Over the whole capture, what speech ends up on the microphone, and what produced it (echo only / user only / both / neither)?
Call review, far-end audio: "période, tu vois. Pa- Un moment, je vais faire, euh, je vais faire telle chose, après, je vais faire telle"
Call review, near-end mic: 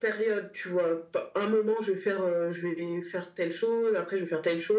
echo only